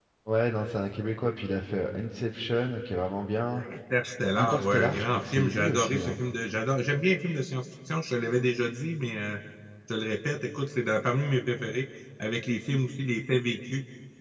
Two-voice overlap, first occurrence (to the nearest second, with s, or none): 4 s